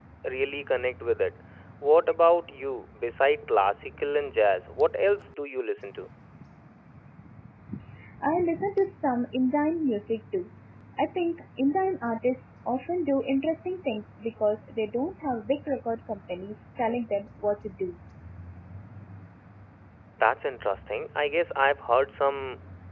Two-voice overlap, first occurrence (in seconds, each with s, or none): none